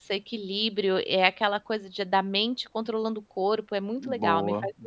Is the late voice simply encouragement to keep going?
No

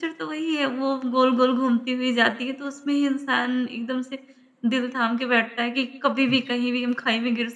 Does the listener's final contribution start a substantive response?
No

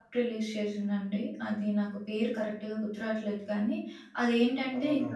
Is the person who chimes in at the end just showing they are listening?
Yes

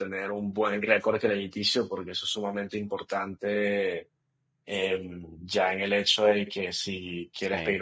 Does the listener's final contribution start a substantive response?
No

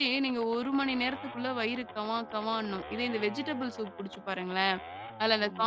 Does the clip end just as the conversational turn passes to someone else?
No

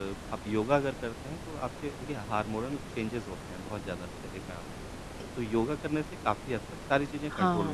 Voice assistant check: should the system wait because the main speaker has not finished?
No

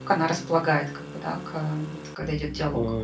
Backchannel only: No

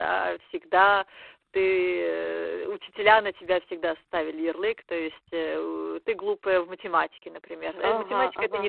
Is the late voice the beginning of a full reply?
No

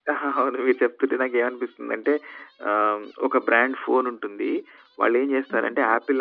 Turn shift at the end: No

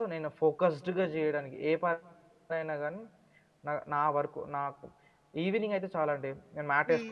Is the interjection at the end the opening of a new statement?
No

